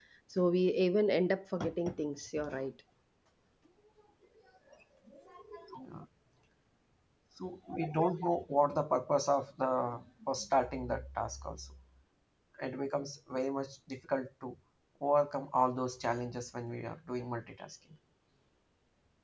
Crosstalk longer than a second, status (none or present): none